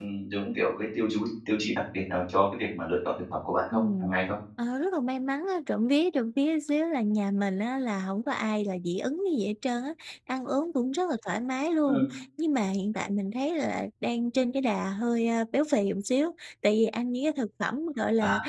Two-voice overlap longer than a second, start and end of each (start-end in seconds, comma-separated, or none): none